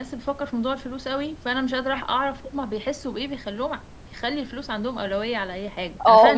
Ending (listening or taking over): taking over